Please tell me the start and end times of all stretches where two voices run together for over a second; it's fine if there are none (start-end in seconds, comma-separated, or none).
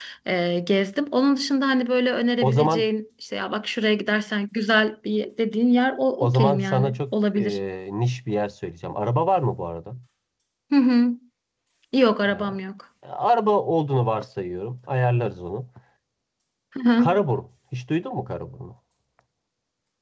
6.2-7.6